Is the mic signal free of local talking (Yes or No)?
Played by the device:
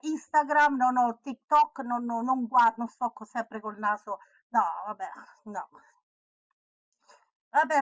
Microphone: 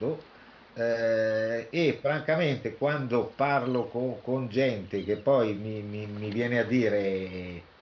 No